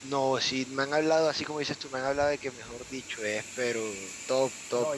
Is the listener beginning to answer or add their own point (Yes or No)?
Yes